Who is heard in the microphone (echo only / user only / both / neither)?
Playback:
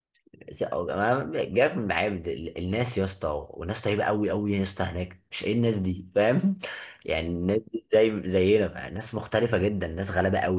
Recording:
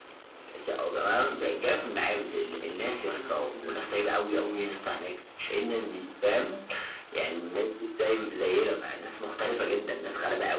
both